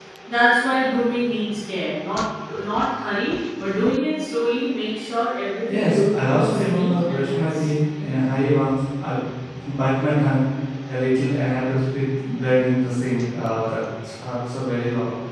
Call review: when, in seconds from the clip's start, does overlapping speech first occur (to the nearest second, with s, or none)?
6 s